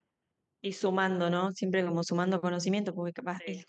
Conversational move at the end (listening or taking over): listening